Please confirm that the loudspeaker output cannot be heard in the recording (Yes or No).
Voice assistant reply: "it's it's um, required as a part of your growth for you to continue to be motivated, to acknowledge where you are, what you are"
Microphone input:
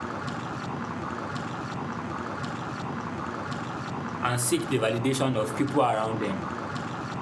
Yes